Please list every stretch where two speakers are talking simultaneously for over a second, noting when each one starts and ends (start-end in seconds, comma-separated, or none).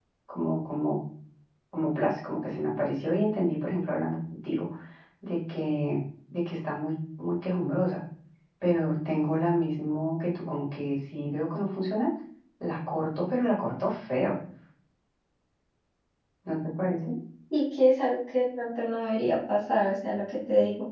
none